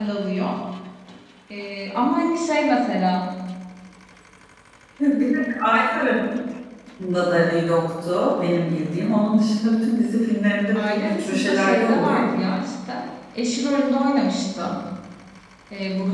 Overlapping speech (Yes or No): Yes